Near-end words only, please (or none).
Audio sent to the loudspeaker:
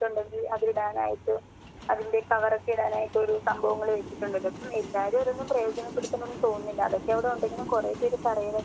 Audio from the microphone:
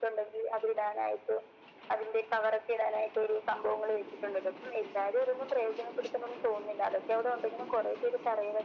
none